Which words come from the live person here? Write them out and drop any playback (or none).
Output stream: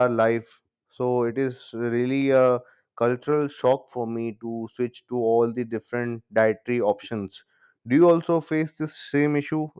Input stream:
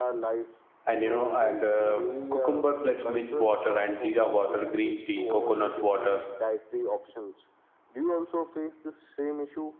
and you know and uh, cucumber plus mint water and jeera water green tea coconut water